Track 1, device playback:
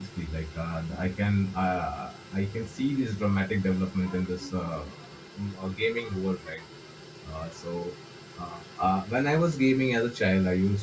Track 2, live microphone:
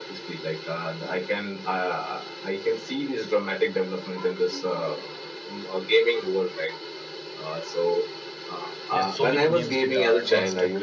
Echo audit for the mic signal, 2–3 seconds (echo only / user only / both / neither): echo only